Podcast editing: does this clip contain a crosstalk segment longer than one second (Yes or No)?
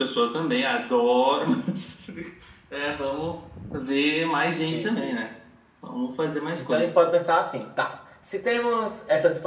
No